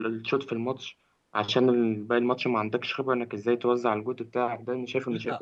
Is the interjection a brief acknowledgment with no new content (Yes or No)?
No